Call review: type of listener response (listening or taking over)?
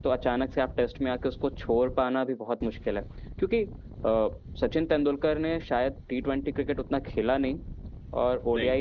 listening